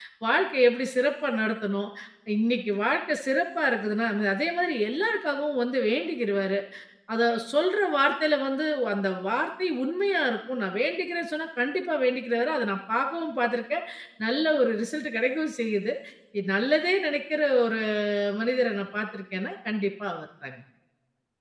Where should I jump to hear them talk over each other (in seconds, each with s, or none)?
none